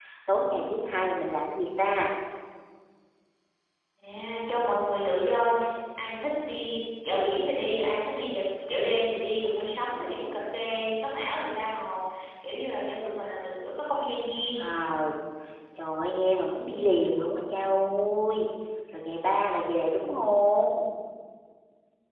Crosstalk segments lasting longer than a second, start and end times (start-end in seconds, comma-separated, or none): none